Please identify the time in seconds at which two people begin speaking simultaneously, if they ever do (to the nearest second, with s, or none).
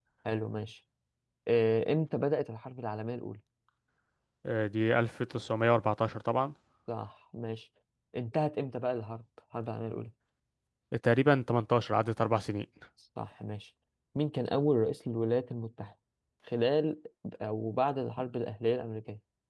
none